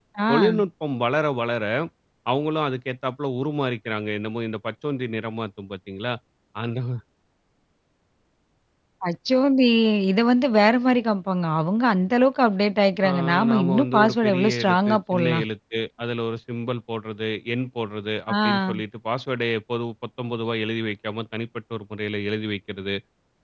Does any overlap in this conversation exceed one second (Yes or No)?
Yes